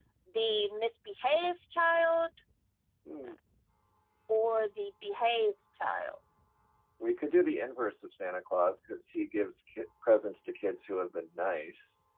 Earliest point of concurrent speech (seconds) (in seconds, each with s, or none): none